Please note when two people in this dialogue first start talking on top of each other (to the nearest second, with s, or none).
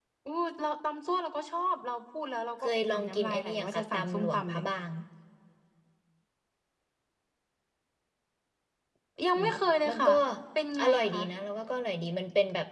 3 s